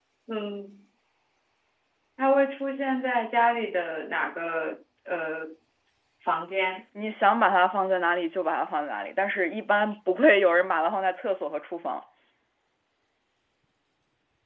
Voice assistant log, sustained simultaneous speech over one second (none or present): none